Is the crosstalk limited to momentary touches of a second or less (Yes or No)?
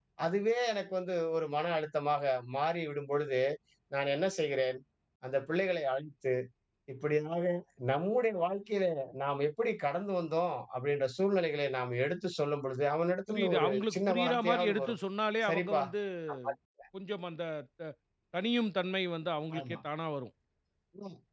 No